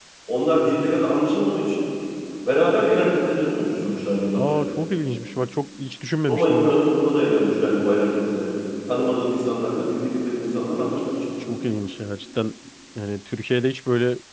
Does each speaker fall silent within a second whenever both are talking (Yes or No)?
Yes